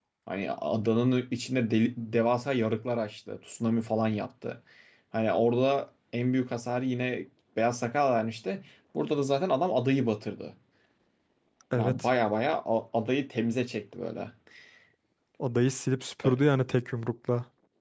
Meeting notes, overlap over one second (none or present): none